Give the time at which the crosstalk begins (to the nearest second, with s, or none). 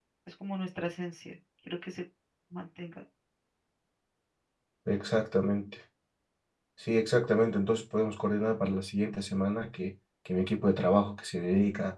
none